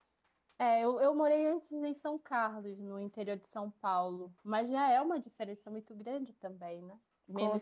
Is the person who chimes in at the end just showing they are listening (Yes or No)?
Yes